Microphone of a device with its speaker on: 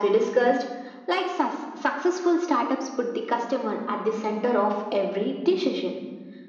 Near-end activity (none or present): none